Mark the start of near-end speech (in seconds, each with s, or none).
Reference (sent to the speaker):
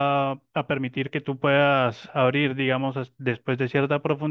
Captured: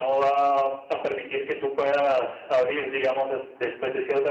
none